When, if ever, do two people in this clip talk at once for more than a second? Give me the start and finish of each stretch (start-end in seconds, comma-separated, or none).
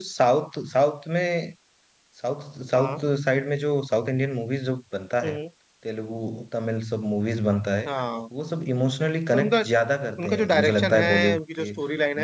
10.2-11.7